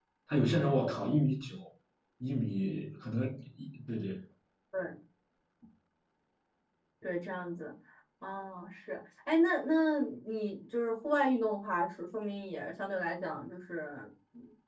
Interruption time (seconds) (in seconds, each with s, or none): none